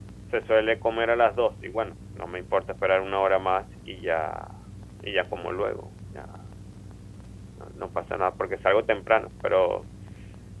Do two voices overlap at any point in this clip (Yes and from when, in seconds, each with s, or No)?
No